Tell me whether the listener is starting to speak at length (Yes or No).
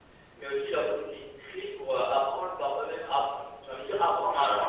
Yes